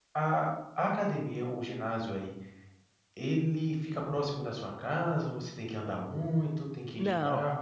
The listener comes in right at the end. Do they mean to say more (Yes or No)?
Yes